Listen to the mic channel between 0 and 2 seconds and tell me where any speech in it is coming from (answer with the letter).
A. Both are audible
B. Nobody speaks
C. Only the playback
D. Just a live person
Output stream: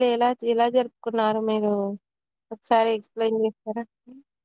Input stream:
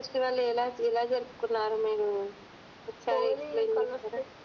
C